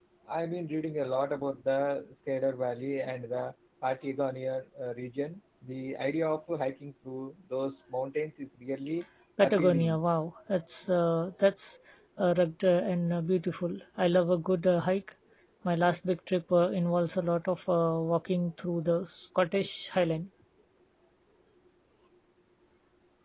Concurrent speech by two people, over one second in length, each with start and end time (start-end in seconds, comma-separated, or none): none